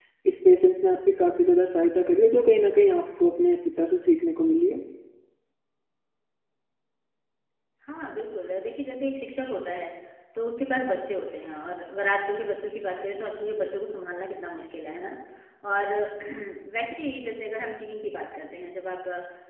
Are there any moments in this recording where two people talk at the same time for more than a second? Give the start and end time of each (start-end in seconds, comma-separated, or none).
none